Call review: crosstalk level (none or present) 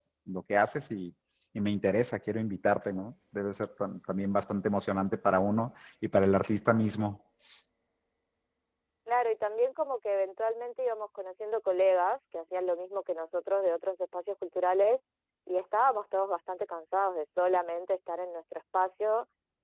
none